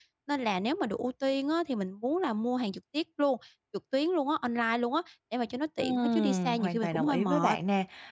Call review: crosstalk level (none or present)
present